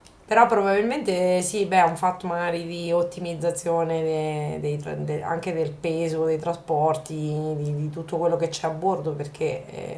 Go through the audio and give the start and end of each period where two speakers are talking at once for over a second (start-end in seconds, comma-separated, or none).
none